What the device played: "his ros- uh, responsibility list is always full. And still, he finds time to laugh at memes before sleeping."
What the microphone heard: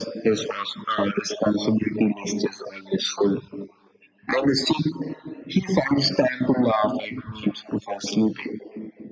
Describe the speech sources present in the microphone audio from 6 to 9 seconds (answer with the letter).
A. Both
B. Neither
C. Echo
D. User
C